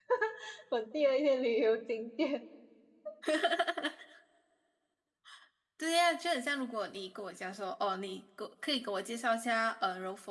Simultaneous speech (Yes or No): No